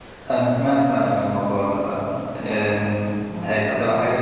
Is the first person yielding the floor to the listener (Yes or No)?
No